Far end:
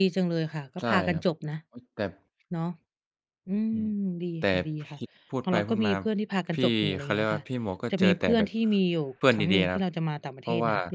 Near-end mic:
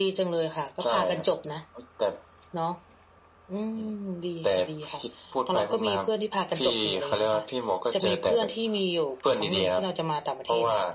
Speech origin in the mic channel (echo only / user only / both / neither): echo only